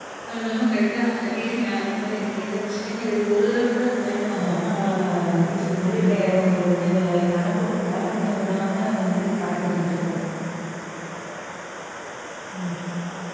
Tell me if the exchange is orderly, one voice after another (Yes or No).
No